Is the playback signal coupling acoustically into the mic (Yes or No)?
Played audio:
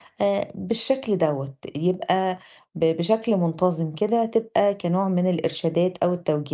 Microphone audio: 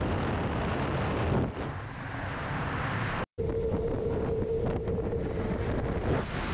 No